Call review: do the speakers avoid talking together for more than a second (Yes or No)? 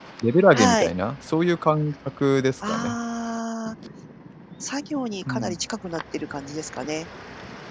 Yes